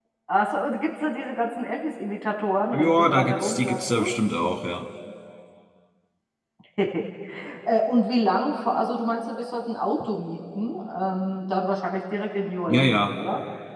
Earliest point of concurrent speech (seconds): 2.7 s

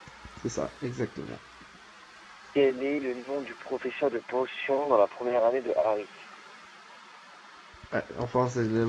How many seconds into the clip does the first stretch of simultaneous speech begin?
none

